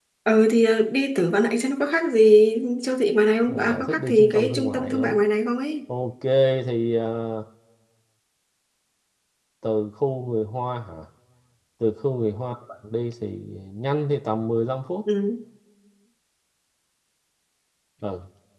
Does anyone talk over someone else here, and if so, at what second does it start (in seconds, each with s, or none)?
3.5 s